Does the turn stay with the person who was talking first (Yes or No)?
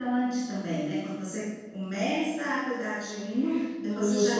No